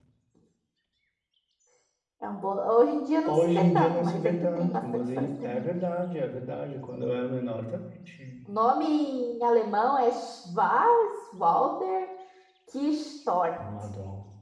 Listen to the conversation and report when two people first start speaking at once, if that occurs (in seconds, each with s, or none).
3.3 s